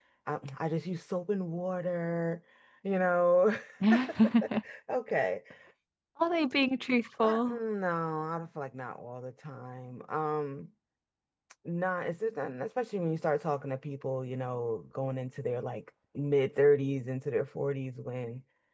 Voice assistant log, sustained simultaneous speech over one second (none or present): none